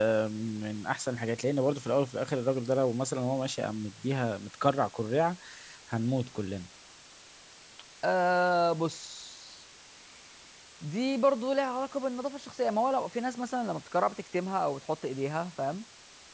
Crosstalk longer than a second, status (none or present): none